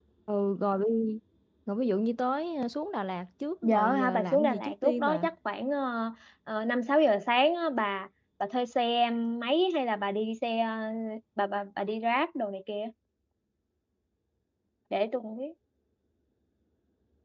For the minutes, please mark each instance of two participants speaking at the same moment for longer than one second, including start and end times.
3.6-5.3

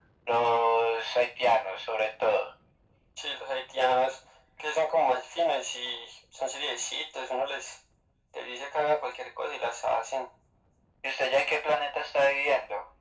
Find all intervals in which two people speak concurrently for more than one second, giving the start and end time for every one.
none

